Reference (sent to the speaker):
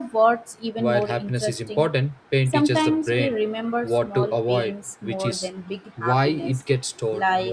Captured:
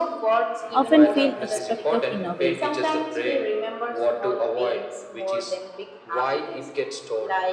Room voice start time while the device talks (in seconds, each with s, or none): 0.7 s